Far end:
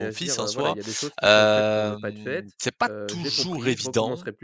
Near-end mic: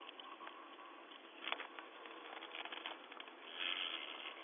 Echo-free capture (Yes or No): Yes